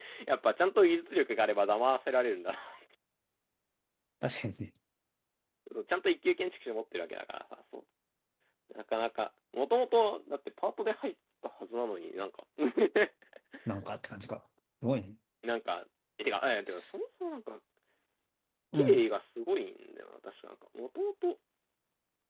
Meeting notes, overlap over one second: none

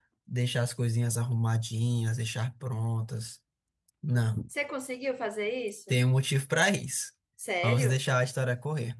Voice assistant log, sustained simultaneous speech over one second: none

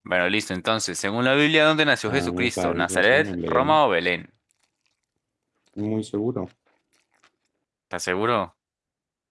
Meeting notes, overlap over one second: present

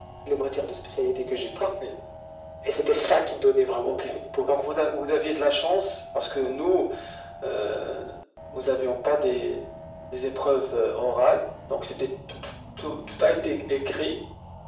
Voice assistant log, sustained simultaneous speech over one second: none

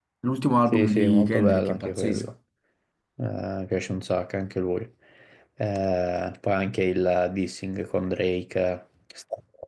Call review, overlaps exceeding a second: present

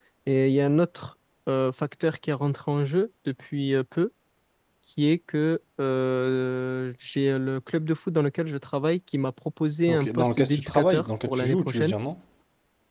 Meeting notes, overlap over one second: present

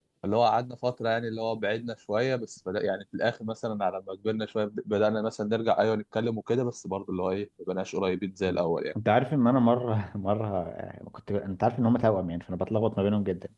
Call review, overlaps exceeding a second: none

